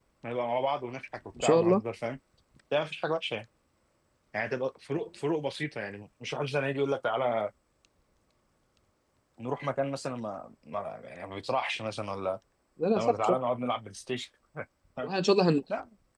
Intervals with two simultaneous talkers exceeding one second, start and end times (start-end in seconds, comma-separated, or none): none